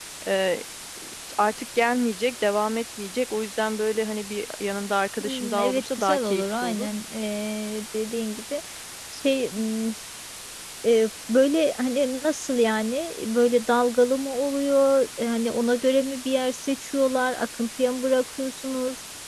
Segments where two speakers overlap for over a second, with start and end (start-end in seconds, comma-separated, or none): 5.2-6.9